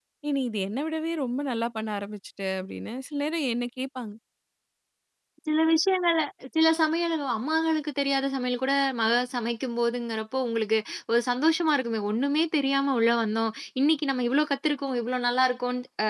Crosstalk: none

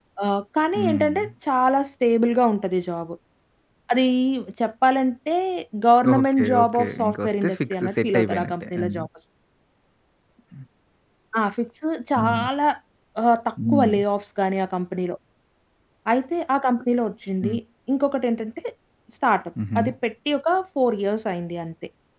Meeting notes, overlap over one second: present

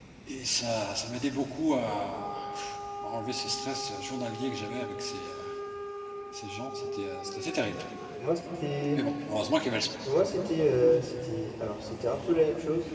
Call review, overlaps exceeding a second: none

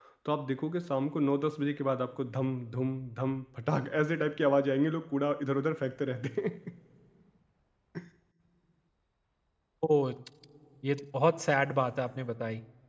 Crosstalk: none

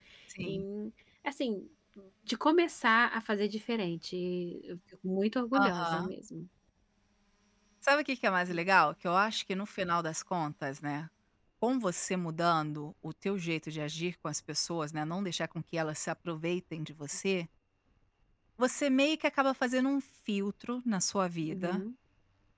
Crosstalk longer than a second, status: none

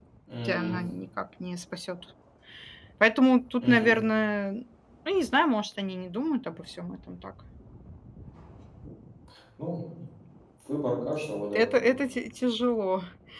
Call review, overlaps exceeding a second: none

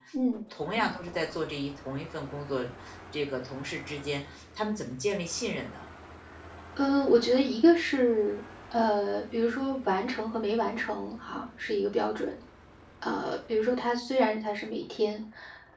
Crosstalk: none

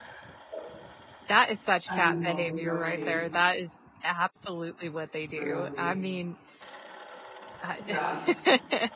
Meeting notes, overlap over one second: present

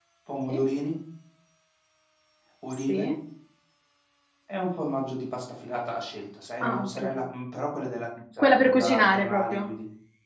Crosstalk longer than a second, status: present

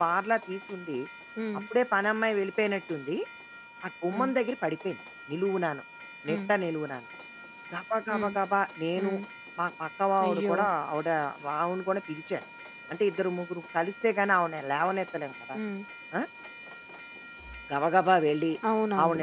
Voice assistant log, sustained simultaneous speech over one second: none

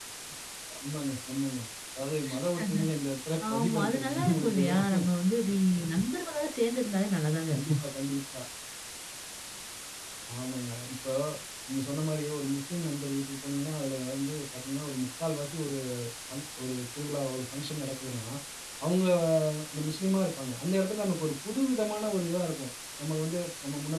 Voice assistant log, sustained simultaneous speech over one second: present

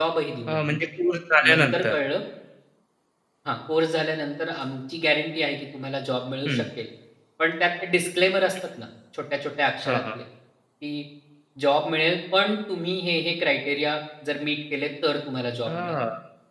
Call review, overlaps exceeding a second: none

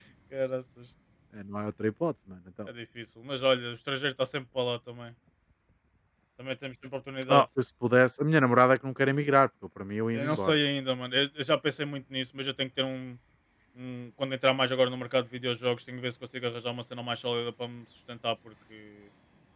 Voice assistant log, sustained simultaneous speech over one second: none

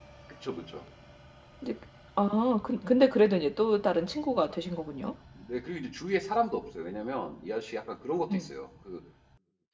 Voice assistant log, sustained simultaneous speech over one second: none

